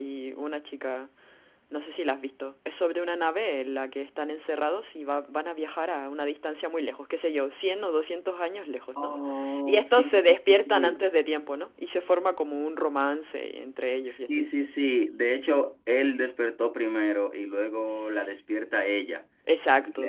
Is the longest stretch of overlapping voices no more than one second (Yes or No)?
No